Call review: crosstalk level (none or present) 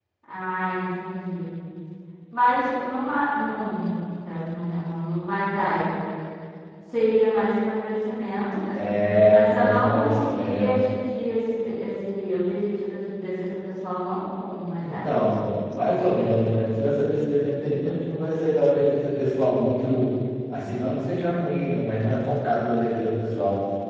present